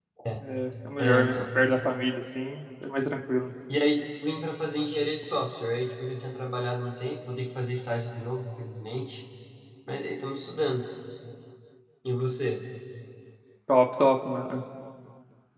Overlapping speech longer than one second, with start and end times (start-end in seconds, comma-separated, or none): none